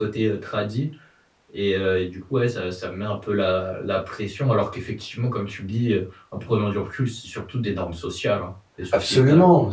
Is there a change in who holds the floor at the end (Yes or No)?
Yes